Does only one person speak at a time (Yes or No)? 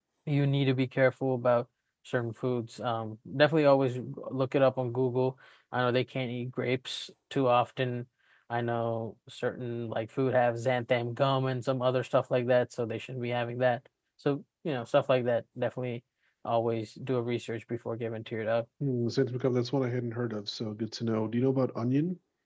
Yes